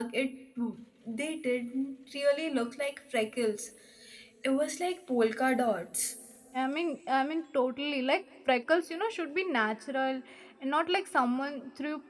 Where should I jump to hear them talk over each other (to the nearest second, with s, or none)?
none